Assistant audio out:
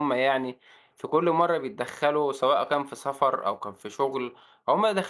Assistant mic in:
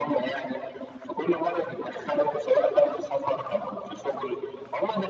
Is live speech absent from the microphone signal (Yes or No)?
Yes